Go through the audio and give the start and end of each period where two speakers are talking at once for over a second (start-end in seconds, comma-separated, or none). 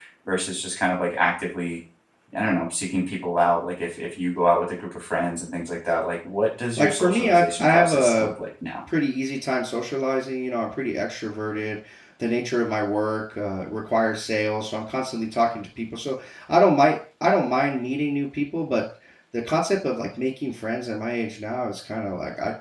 6.8-8.3